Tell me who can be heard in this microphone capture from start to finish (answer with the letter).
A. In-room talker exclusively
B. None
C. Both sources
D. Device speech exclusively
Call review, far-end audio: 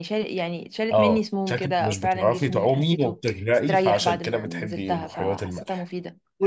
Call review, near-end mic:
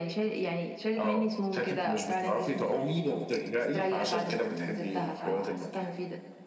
D